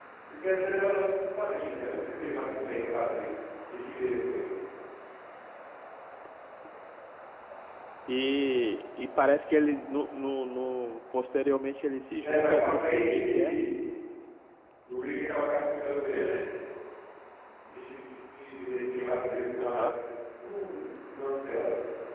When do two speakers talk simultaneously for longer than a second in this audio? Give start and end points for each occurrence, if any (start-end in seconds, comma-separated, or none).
12.2-13.6